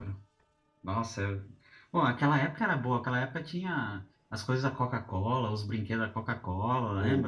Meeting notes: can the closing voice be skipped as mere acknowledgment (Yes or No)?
No